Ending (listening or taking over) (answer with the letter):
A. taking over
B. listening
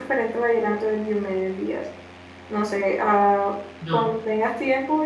B